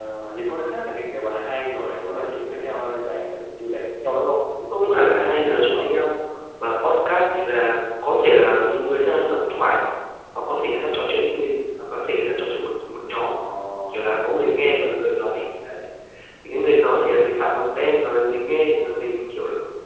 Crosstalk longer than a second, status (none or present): none